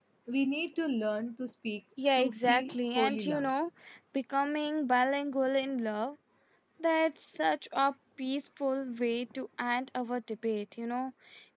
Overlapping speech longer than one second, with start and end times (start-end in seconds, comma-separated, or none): 2.2-3.5